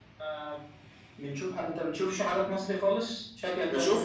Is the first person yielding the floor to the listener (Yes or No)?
Yes